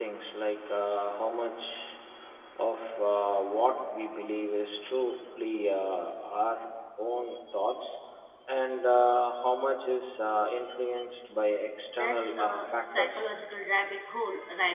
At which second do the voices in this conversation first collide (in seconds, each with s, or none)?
11.9 s